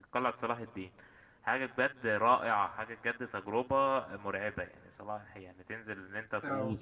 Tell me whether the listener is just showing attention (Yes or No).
Yes